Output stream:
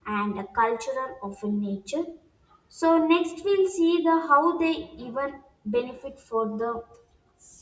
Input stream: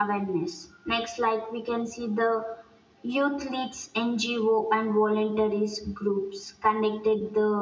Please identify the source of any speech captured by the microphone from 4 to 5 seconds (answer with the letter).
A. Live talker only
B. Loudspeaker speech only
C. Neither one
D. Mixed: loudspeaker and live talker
A